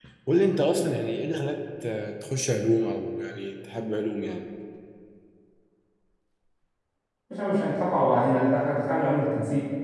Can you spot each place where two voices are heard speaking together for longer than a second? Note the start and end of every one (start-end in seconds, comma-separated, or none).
none